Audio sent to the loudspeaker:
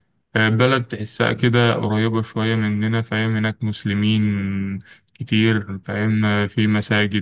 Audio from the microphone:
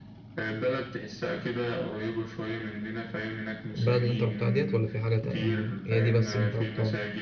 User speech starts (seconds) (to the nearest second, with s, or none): 4 s